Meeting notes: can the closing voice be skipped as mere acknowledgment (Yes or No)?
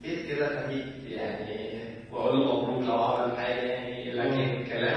Yes